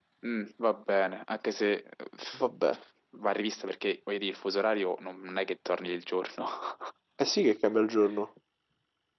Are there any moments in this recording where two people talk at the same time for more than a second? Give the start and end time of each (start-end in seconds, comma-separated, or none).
none